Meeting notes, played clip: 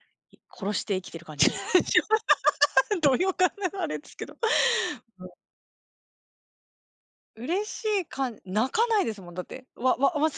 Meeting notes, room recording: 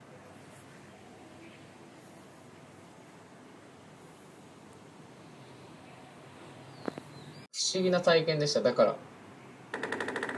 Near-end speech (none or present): present